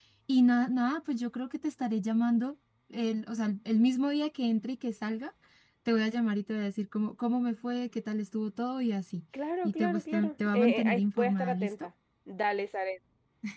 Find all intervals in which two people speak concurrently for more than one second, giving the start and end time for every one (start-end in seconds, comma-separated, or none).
9.6-11.9